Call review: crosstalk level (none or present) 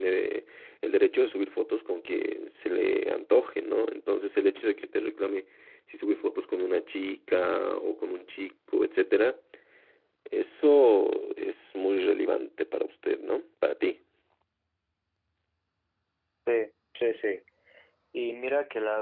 none